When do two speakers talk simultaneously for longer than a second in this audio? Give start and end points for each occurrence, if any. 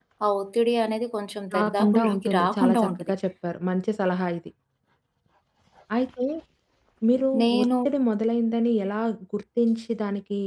1.5-3.1

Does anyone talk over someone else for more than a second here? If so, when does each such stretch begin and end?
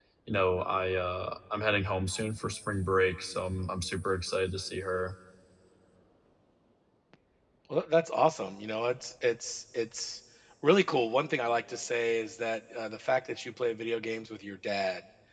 none

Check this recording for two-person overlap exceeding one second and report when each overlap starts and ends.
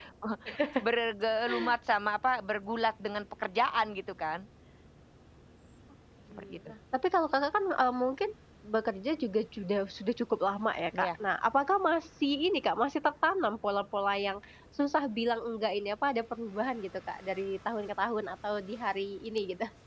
none

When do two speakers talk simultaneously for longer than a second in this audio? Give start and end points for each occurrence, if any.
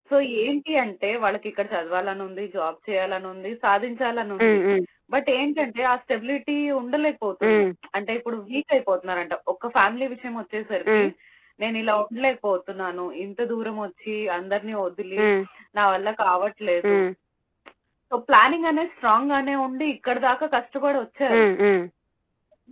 none

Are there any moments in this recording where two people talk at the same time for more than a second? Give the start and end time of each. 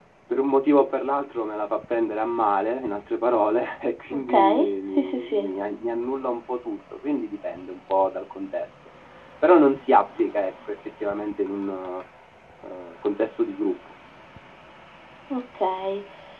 4.1-5.5

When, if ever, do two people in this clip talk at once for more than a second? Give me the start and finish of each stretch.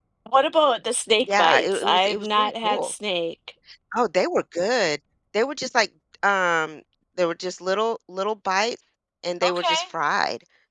1.3-2.9

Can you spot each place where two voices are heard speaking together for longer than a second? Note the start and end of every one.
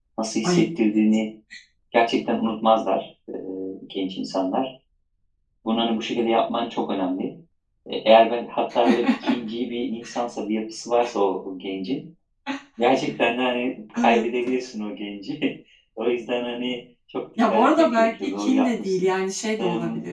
17.5-19.1

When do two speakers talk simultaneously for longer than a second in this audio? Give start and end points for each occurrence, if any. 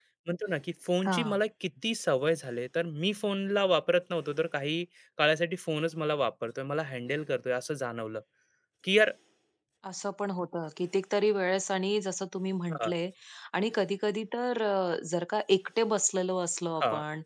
none

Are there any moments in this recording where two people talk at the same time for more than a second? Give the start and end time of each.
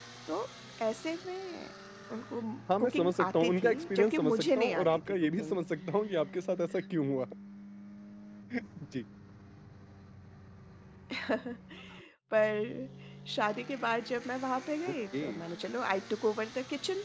2.8-5.6

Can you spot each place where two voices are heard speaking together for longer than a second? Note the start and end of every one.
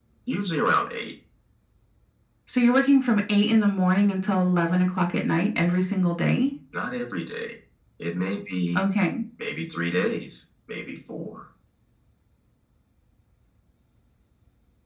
none

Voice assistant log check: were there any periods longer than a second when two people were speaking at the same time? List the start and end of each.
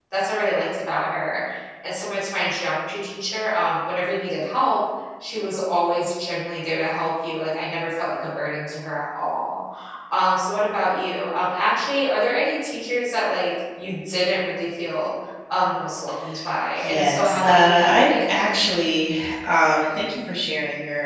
16.8-18.5

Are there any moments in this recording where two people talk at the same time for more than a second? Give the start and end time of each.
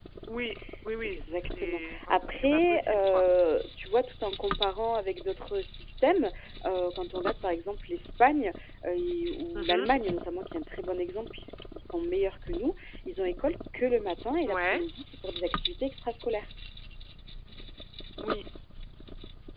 1.0-3.2

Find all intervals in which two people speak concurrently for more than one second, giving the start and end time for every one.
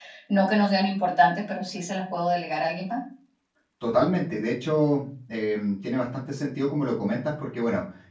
none

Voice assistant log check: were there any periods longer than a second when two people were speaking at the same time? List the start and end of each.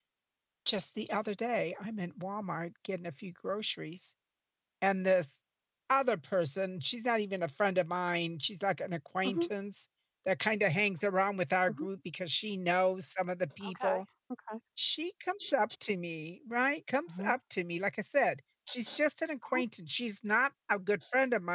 none

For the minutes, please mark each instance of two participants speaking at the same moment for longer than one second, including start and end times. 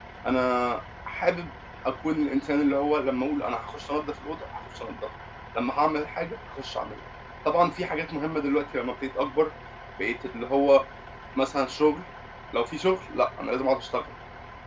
none

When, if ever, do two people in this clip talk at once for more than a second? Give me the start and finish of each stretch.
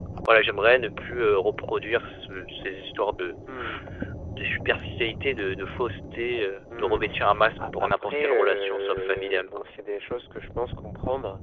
7.8-9.7

